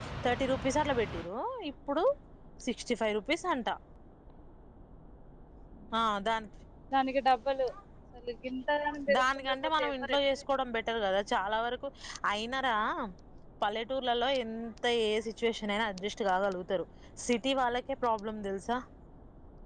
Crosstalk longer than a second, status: present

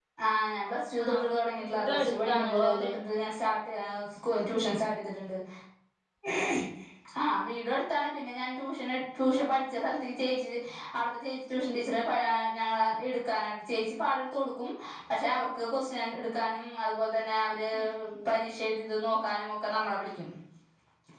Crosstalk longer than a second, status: present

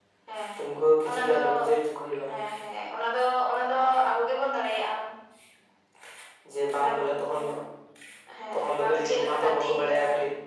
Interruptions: present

